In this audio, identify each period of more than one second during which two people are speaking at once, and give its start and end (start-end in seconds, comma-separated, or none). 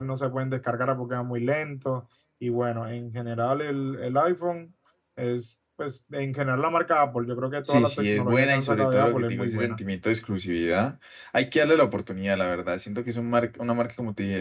7.6-9.8